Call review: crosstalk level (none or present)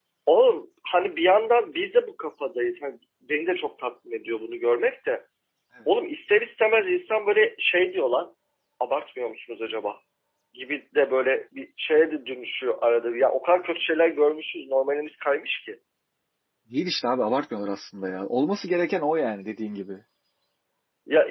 none